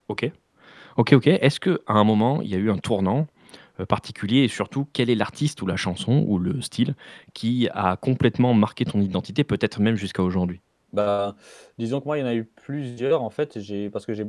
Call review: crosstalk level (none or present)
none